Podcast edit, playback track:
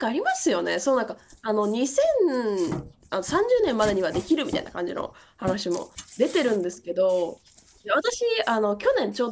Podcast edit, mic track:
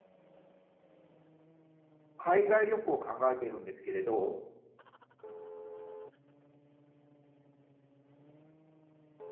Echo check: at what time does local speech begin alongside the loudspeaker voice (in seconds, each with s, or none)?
2.2 s